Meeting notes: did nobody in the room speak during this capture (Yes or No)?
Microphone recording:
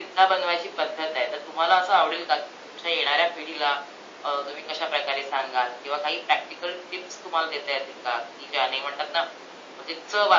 Yes